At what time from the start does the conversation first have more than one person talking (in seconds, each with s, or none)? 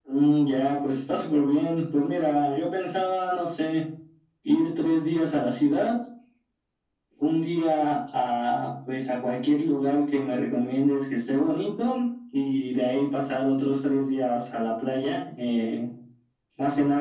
none